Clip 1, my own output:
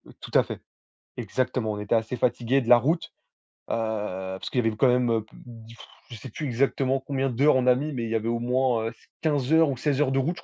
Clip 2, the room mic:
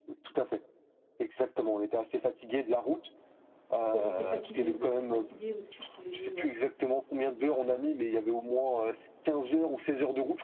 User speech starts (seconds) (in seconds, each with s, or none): 3.9 s